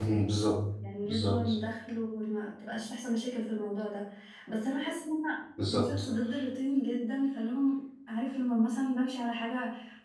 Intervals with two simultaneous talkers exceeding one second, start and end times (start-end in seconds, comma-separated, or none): none